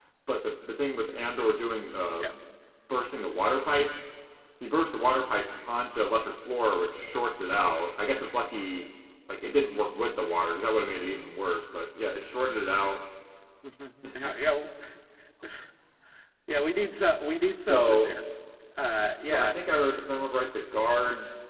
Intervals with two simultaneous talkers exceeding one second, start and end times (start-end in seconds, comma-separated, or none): none